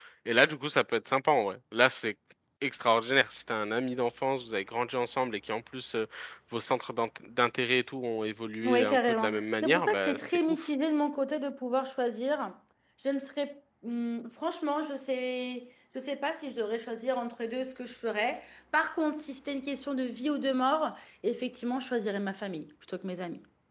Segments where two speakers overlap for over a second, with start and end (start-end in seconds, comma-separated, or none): 8.6-10.7